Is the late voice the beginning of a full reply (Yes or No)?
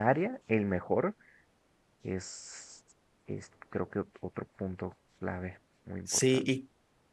Yes